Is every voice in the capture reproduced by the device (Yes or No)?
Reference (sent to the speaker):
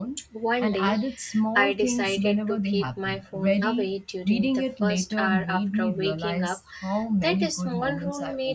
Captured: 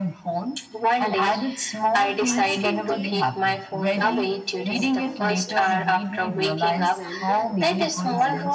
No